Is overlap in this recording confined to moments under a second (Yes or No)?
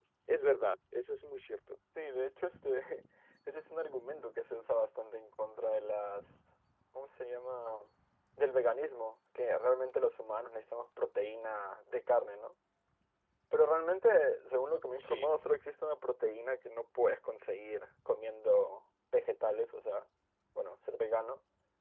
Yes